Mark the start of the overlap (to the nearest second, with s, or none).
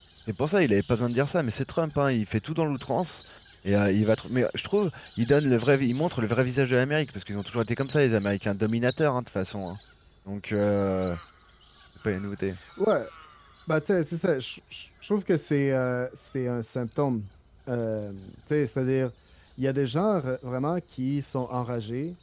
none